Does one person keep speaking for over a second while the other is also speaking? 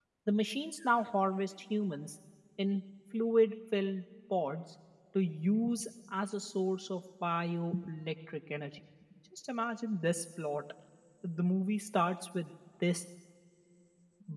No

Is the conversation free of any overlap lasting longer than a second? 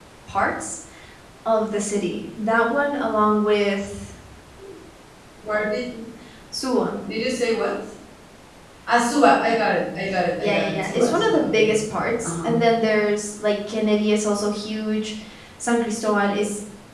No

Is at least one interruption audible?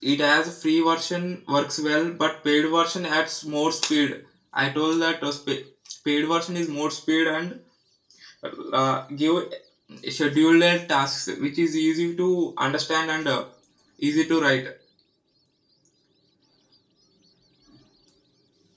No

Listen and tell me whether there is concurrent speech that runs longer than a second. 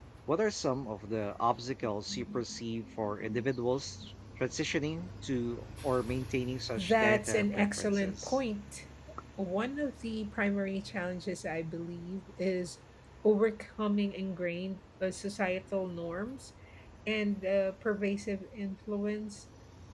Yes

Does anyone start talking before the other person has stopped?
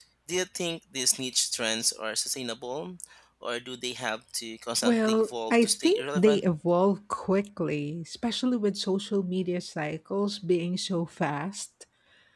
Yes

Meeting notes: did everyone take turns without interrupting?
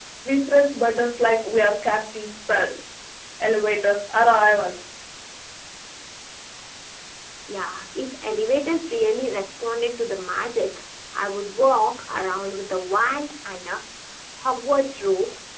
Yes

